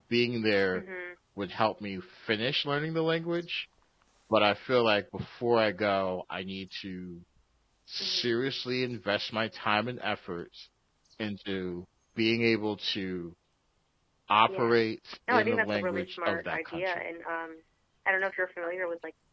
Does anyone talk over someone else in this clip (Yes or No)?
Yes